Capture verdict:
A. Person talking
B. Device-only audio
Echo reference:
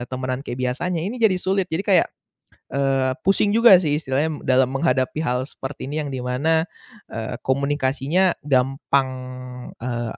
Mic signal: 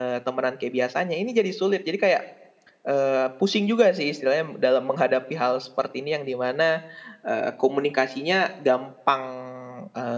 B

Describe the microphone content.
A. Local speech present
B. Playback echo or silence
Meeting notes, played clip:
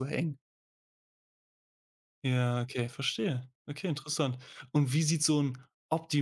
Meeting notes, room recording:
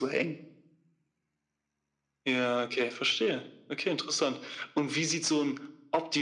B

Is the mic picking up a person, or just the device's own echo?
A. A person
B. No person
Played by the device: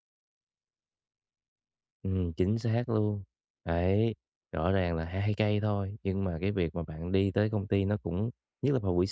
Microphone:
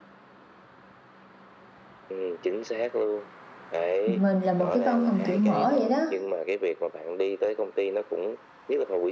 A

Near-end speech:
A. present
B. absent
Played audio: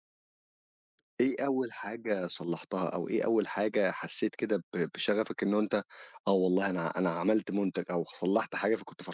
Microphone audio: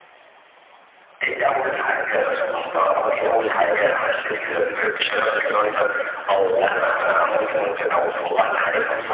B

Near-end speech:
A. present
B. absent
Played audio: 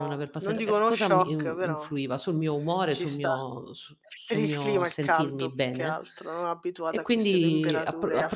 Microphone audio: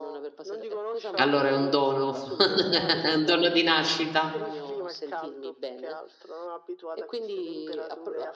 A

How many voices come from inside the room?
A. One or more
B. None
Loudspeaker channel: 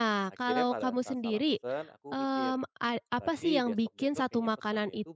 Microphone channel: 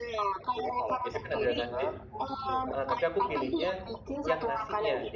A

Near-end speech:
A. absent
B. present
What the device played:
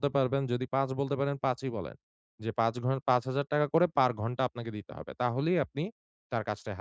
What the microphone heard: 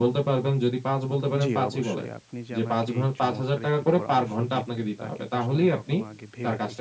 B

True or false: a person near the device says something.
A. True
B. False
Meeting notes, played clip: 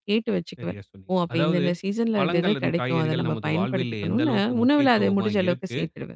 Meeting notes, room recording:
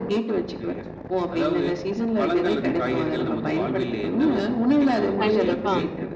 A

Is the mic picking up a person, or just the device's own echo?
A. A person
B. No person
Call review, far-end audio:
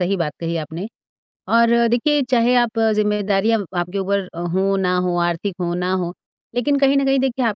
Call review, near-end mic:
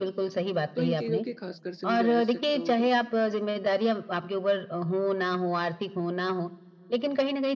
A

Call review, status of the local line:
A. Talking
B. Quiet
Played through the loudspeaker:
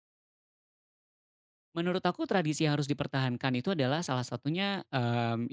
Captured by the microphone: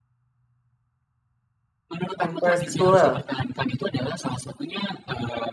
A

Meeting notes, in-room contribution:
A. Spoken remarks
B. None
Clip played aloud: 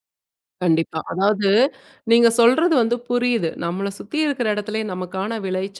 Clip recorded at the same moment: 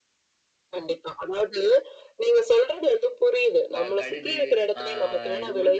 A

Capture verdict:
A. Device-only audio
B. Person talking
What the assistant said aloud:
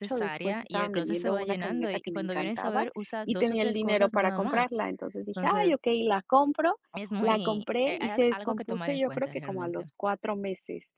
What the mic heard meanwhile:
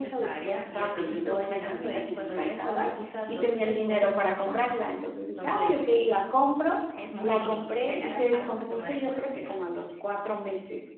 A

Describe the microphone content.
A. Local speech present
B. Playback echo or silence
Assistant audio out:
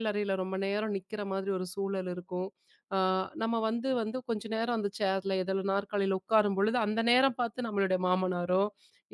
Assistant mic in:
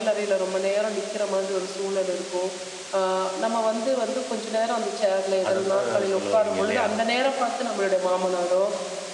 A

